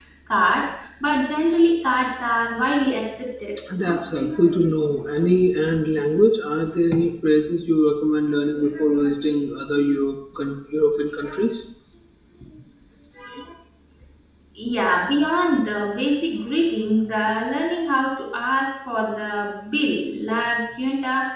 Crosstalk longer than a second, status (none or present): none